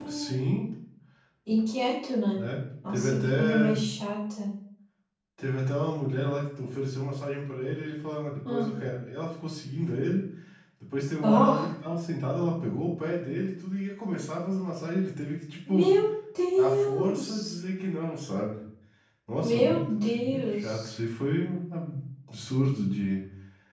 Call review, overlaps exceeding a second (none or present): present